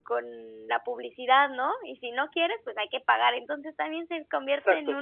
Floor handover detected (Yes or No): Yes